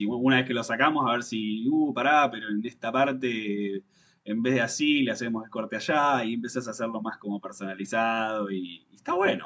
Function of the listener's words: taking over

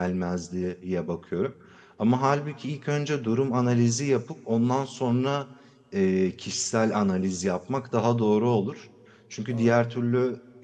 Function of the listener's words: listening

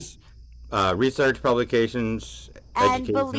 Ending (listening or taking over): taking over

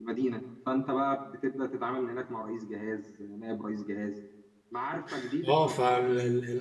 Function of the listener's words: taking over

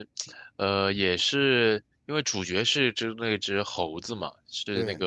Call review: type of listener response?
listening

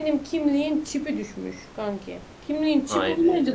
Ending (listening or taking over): listening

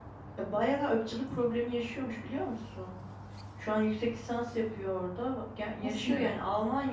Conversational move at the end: listening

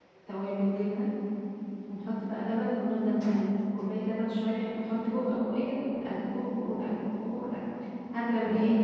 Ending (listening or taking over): listening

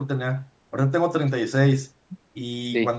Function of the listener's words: listening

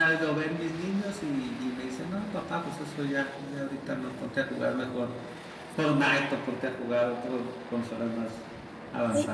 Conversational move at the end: taking over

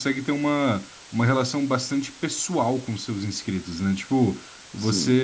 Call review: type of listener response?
listening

